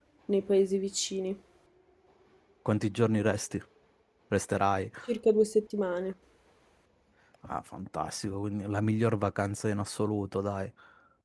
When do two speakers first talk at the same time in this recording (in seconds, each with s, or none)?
none